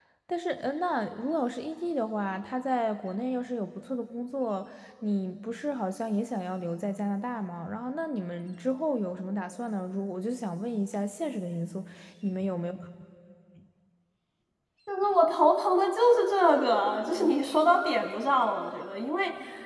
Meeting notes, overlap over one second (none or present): none